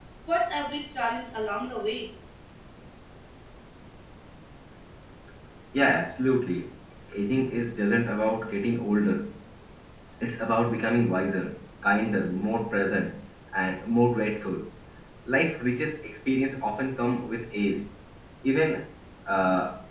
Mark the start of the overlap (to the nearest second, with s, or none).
none